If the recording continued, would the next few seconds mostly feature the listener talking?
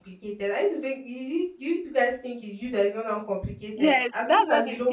Yes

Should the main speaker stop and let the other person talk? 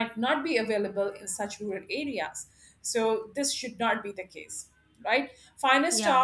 No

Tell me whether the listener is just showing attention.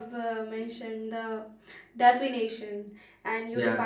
Yes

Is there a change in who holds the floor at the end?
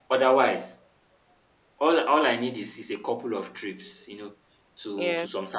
No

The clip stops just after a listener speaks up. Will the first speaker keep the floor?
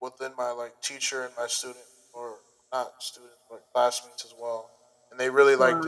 Yes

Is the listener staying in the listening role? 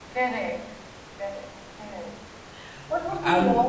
Yes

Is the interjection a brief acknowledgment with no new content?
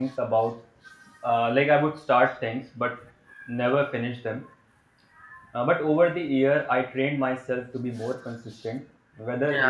Yes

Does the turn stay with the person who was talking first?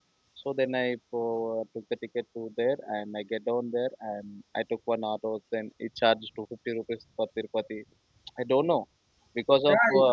No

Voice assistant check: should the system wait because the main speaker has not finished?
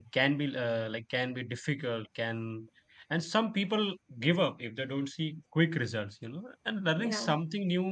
Yes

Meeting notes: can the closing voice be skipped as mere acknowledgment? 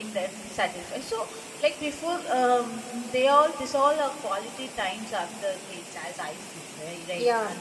No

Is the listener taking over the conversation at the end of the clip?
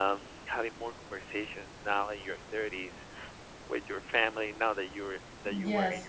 No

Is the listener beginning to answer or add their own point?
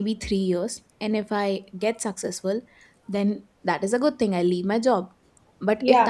No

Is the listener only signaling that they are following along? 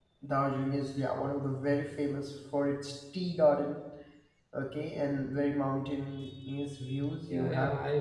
No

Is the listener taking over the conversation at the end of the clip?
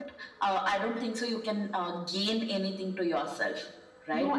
Yes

